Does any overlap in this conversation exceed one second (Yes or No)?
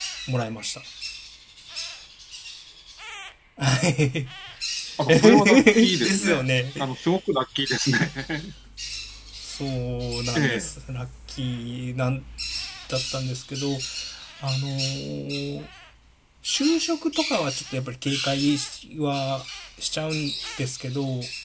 Yes